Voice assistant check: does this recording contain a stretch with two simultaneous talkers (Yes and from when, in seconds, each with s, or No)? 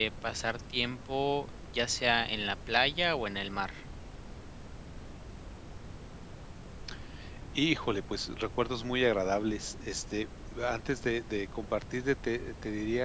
No